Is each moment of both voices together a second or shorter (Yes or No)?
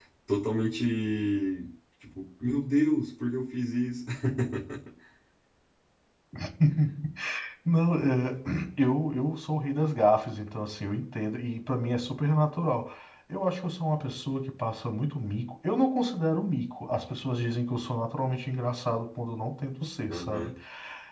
Yes